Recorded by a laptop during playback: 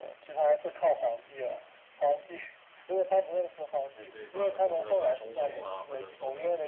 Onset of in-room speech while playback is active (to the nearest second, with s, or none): 4 s